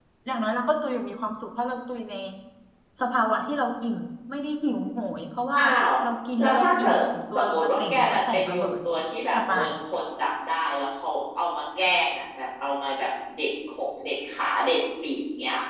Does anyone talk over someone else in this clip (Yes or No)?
Yes